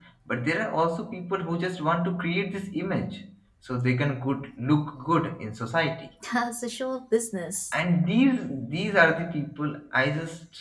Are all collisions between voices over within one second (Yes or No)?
Yes